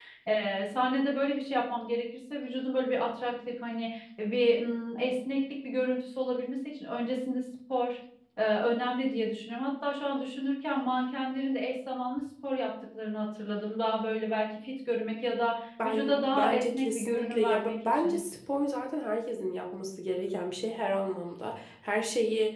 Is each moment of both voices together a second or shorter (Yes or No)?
No